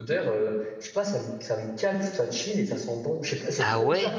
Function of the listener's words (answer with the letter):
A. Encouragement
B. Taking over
A